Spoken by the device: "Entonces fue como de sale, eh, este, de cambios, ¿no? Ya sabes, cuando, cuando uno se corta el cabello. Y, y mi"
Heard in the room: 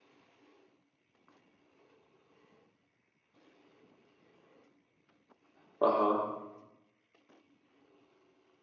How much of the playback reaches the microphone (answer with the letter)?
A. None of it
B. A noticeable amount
A